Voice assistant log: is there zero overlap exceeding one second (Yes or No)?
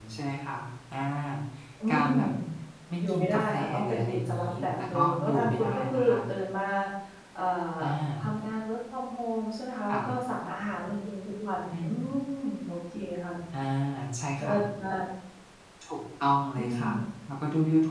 No